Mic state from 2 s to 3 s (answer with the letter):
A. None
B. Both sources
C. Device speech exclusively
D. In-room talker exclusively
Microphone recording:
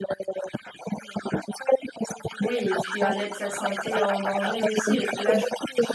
B